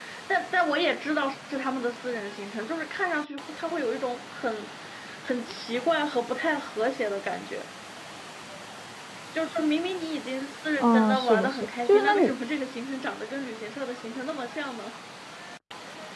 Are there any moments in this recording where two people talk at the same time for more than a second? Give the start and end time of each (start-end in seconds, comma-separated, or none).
10.8-12.3